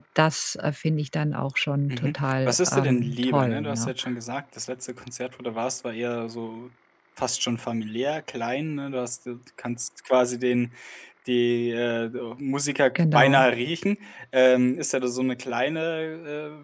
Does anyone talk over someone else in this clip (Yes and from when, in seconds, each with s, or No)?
Yes, from 1.9 s